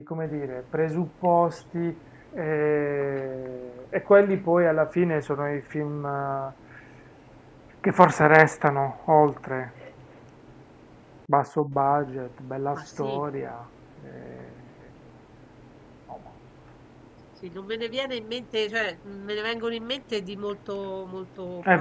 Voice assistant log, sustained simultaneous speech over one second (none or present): none